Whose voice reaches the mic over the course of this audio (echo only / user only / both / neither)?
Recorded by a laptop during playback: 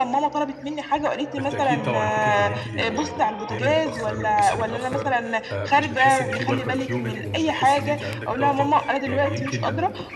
both